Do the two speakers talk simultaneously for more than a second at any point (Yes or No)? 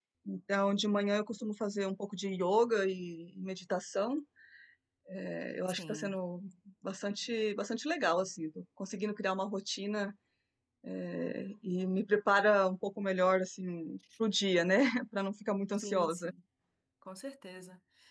No